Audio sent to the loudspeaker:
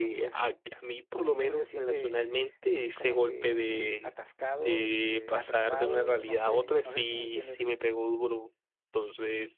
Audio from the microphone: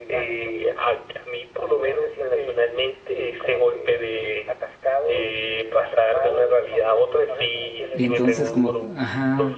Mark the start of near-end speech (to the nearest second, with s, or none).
8 s